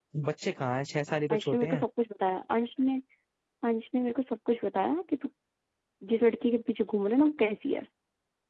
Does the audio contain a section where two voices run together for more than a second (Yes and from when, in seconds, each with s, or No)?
No